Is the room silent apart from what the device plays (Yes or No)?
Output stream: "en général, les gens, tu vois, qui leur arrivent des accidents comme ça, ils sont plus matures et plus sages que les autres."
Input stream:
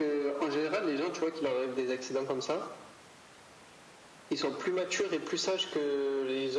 Yes